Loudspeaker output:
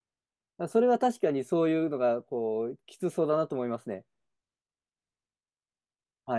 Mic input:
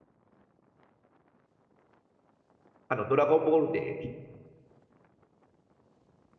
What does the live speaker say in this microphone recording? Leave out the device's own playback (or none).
あの、ドラゴンボールで